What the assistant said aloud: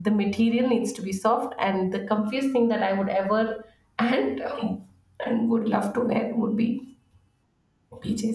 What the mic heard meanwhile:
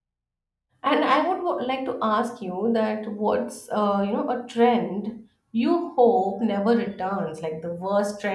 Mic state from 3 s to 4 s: user only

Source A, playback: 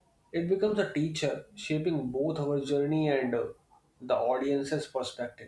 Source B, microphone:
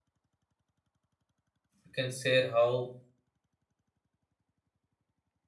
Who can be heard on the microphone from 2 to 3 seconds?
user only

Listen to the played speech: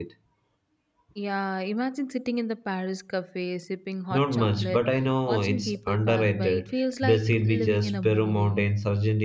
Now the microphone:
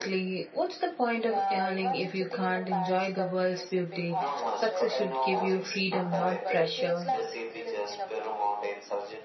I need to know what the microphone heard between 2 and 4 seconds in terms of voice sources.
both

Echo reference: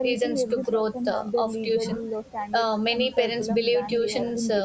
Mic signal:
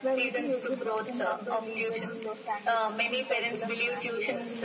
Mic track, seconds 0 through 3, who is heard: echo only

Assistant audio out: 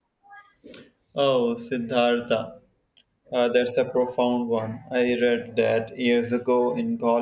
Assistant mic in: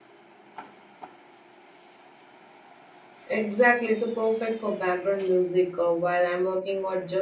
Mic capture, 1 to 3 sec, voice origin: neither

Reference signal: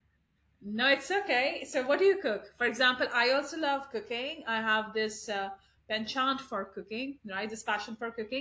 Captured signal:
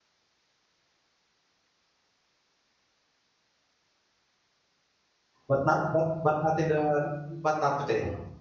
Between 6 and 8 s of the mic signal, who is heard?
user only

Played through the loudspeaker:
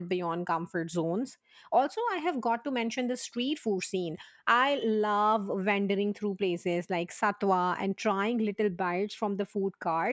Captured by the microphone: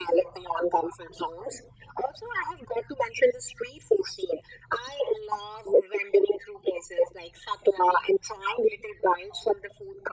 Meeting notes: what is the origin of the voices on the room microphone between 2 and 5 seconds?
echo only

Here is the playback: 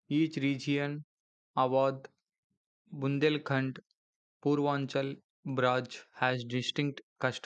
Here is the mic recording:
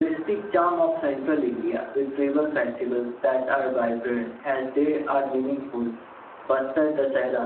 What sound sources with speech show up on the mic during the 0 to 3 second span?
user only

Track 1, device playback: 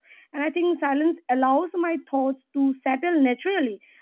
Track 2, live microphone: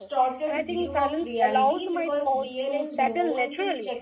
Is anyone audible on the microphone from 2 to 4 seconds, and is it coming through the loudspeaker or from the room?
both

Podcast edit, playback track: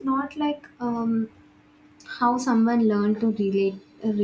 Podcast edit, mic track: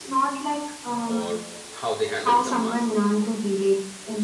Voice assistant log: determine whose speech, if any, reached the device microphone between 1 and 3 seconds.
both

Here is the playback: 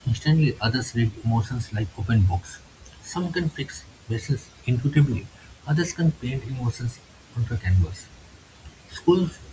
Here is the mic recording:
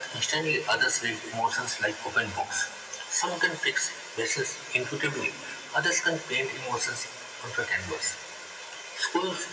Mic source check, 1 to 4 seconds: echo only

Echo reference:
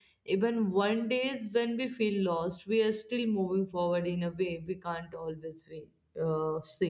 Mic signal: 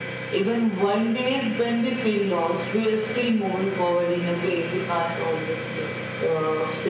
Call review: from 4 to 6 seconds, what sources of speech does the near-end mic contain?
echo only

